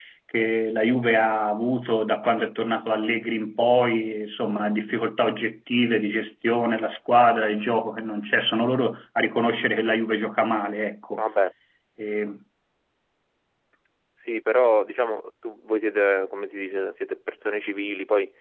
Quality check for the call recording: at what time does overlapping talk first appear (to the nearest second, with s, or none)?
none